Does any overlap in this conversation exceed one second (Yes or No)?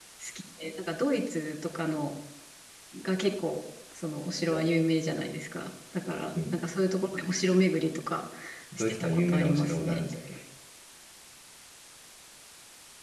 Yes